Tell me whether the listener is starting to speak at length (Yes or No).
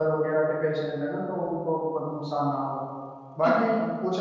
No